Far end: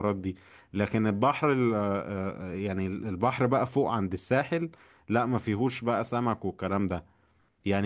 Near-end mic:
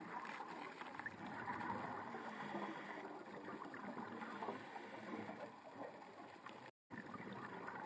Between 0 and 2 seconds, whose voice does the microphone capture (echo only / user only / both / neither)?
neither